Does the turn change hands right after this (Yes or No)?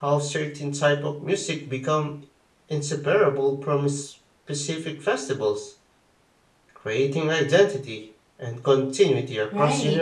Yes